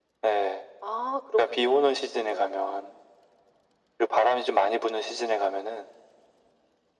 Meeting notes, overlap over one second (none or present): present